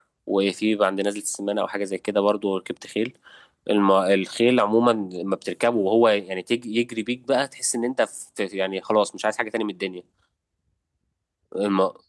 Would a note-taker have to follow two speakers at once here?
No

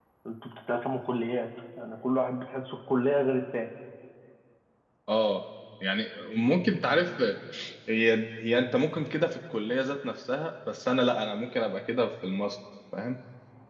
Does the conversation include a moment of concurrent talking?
No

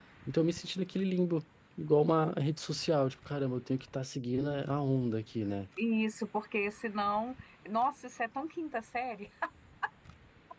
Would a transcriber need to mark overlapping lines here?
No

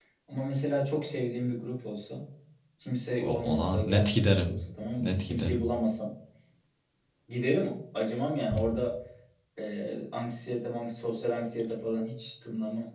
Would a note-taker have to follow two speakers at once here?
Yes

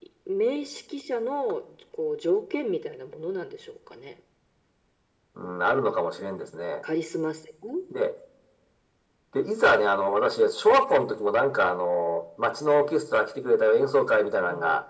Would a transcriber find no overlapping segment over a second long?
Yes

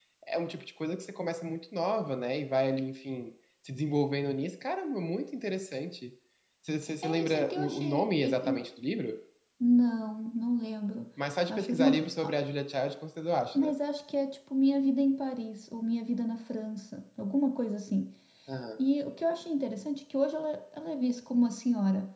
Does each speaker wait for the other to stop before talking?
No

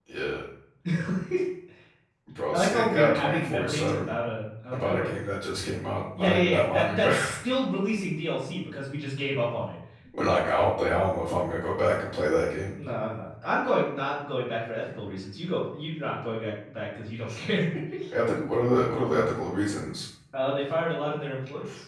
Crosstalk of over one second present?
Yes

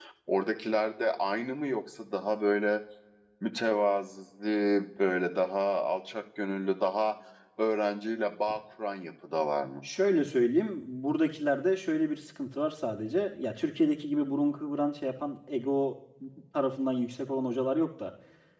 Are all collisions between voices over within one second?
Yes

